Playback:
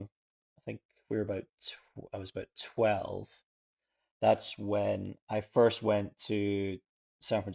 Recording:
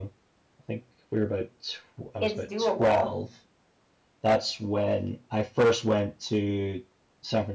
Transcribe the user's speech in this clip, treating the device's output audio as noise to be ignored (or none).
it's doable.